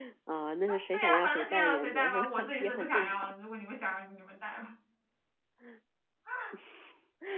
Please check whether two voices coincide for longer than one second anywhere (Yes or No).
Yes